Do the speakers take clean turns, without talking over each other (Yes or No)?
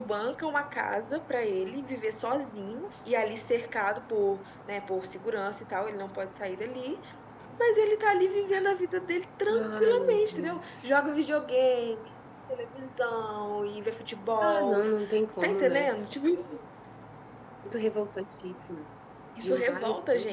No